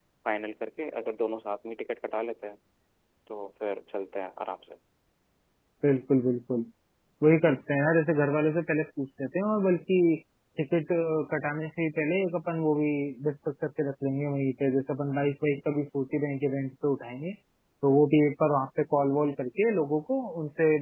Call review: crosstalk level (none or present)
none